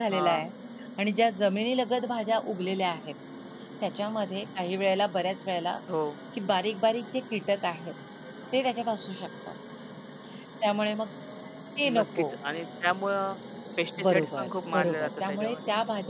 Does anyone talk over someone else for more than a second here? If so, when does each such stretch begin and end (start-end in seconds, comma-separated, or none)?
14.0-15.6